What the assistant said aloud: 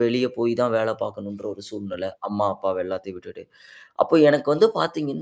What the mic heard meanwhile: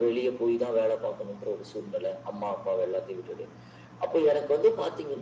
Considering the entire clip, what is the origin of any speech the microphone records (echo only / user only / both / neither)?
echo only